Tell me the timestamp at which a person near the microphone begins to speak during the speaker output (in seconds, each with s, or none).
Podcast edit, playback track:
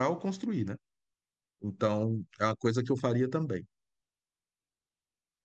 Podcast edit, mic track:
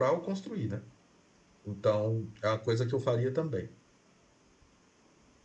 none